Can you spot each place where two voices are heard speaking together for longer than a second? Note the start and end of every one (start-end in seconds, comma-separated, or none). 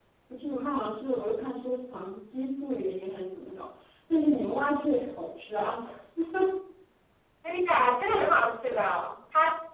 none